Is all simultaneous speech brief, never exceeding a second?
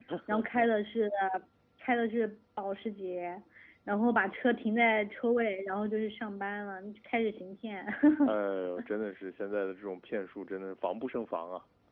Yes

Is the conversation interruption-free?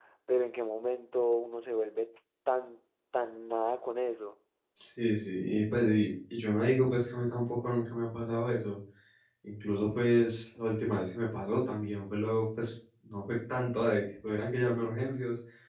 Yes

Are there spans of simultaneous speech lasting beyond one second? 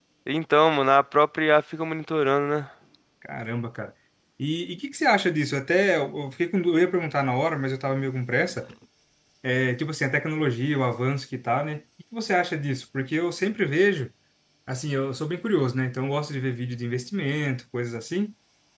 No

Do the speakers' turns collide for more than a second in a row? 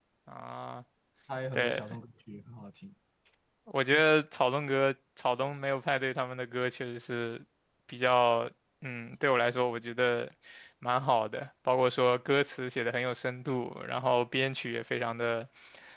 No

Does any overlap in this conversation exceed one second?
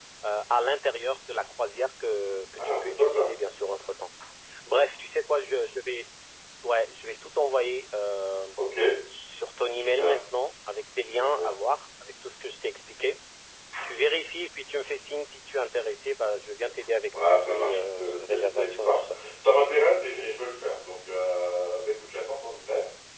Yes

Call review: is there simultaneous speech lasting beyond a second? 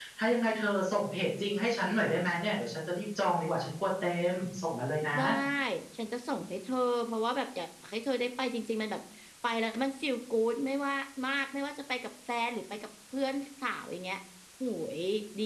No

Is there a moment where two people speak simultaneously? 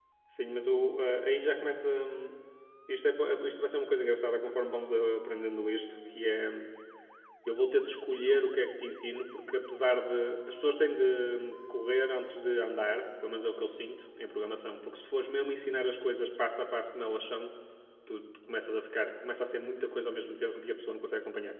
No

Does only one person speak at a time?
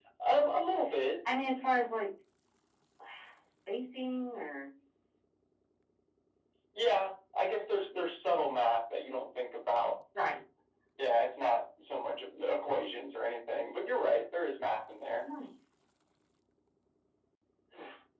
Yes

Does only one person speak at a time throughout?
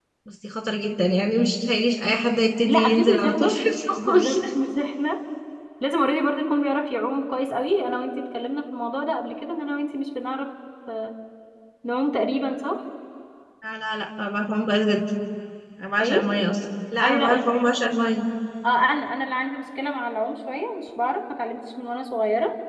No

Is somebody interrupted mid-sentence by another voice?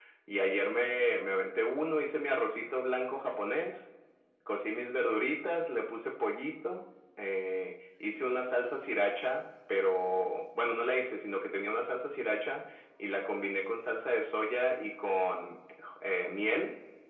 No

